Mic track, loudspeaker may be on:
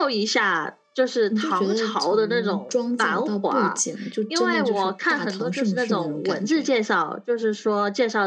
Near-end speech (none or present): none